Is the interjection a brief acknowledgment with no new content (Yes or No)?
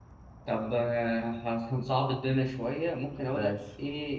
Yes